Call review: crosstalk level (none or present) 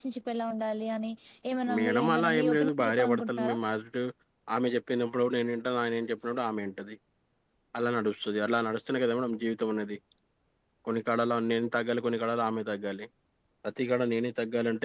present